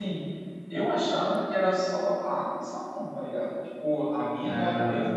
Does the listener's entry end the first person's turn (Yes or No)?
No